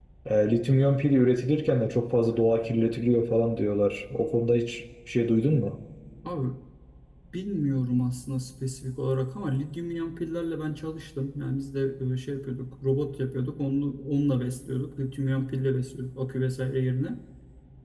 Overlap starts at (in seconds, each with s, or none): none